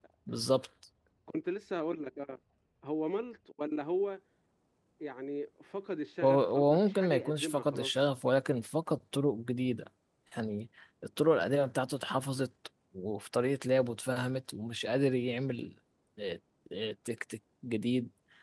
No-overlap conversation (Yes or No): No